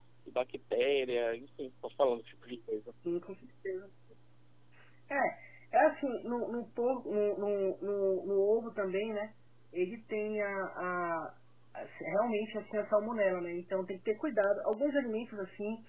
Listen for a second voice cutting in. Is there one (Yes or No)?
No